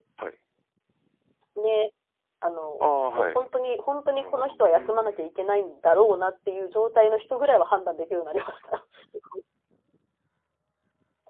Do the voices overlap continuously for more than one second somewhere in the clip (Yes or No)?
Yes